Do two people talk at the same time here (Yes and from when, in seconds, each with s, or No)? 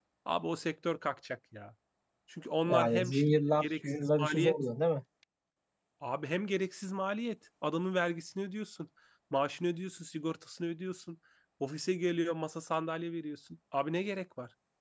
Yes, from 2.7 s